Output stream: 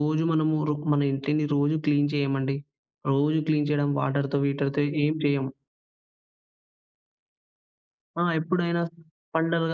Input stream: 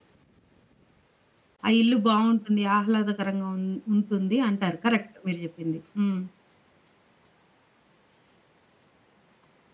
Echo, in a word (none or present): none